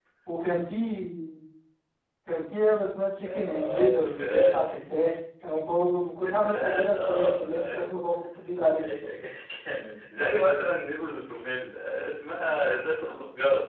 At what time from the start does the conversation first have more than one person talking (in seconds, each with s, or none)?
3.2 s